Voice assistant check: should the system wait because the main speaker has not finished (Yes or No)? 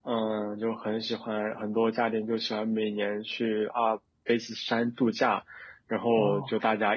Yes